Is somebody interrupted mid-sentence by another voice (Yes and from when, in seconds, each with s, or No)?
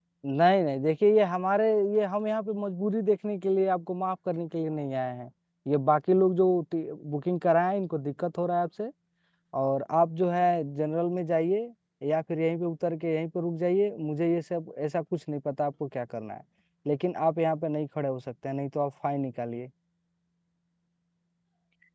No